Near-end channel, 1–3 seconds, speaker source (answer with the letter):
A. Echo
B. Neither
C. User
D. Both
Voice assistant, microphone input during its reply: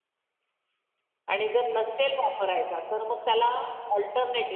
C